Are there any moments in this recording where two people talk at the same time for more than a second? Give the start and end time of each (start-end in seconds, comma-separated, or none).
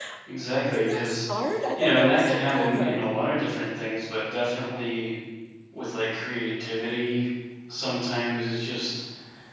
1.8-3.0